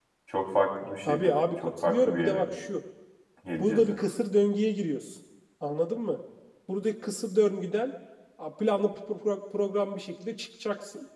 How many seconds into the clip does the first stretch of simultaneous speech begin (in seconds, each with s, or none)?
1.1 s